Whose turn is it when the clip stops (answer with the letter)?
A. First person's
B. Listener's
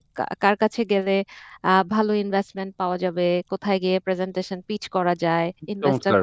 A